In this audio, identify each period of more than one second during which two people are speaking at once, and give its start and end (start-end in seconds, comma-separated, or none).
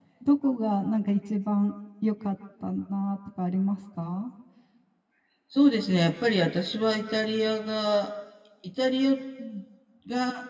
none